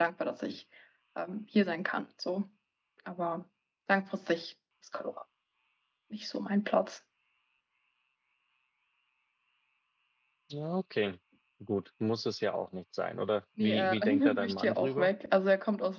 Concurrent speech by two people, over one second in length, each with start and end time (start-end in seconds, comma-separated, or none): 13.6-15.1